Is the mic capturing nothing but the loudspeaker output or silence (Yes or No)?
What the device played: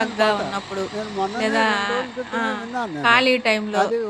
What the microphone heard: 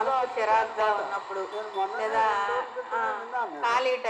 Yes